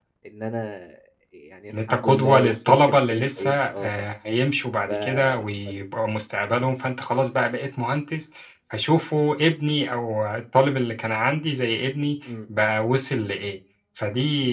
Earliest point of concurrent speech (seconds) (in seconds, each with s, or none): 1.7 s